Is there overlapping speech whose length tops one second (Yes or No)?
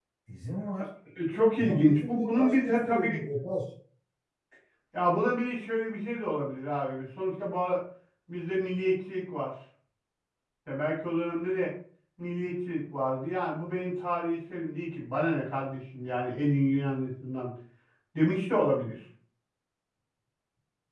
Yes